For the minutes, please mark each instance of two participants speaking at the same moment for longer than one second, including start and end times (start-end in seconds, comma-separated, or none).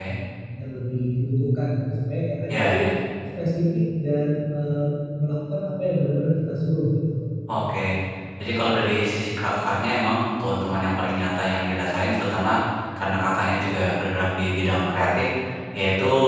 none